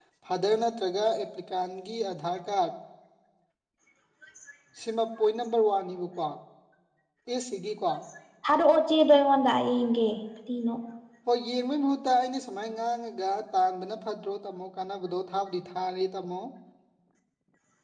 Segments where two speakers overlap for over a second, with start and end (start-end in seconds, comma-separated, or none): none